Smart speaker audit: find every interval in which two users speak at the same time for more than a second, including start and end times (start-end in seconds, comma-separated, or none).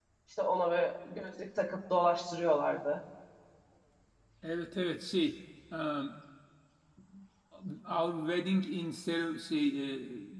none